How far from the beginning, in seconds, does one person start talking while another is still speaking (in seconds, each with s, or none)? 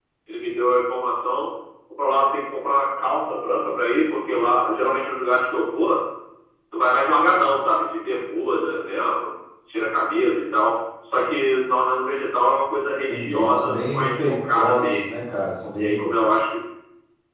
13.1 s